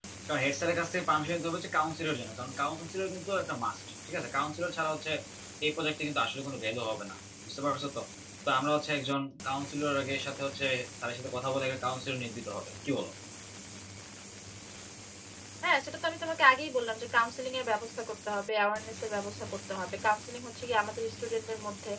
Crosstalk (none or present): none